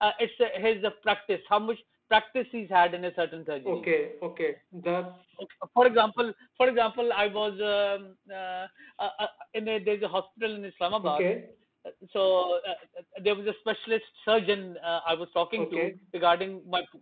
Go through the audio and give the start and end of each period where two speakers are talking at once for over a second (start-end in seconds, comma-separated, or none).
none